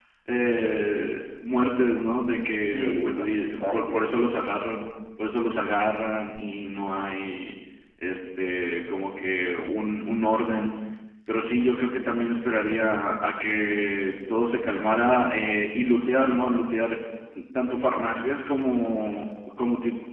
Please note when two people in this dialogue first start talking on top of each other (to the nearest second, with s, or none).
3 s